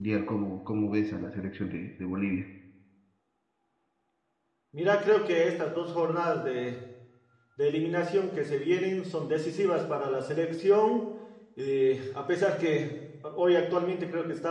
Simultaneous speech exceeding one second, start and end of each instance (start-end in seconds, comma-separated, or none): none